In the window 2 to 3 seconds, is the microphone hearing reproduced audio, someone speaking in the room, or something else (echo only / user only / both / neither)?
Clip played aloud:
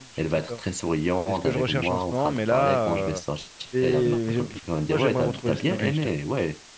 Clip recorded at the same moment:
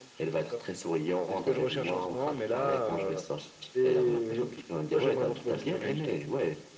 echo only